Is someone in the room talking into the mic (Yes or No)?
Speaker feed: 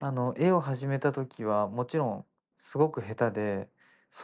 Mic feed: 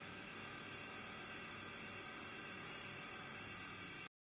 No